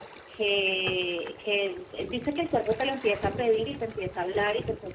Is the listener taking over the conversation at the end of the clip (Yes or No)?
No